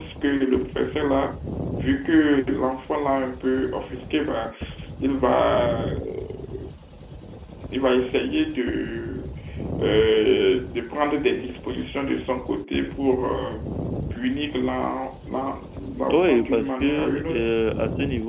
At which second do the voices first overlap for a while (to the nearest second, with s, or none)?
16 s